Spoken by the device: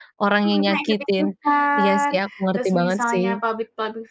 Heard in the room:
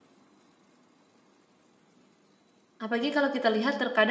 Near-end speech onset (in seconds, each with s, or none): 2.8 s